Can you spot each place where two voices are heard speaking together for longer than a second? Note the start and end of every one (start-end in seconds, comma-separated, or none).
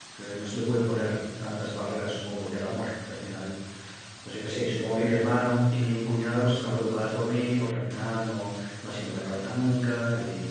none